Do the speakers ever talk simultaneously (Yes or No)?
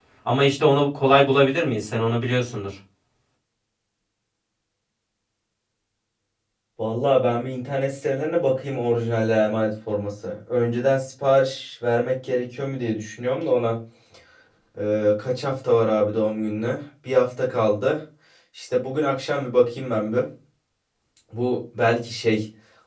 No